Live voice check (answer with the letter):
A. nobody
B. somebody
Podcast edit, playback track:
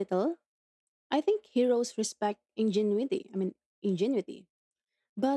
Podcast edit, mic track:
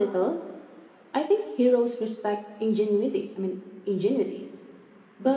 A